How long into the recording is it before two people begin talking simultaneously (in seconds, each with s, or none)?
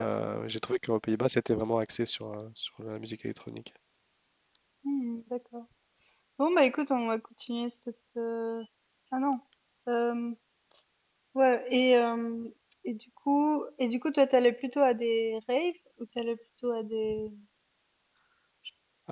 none